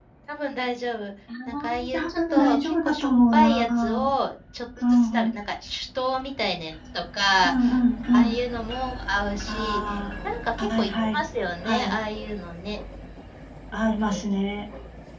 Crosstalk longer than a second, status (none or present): present